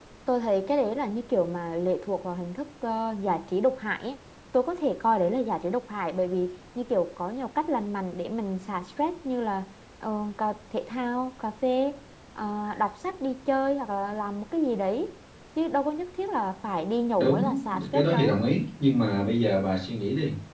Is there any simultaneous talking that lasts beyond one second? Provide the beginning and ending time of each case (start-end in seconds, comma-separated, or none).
17.2-18.4